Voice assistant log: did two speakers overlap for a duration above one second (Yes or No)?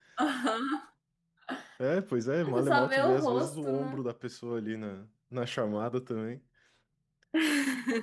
Yes